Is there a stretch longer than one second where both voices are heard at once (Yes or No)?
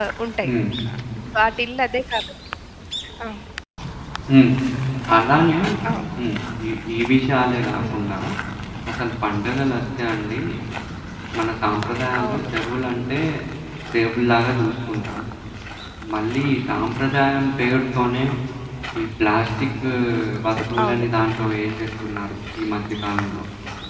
No